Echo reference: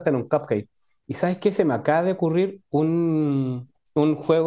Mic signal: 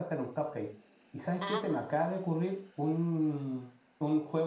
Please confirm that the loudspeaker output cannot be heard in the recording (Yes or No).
No